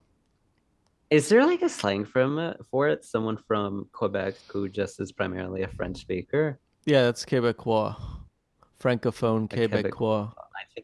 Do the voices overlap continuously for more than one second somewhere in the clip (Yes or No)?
No